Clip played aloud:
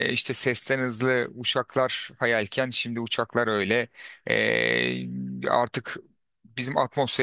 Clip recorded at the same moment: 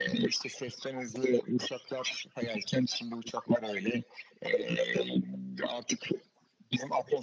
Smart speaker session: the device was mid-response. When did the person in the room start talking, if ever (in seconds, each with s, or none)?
none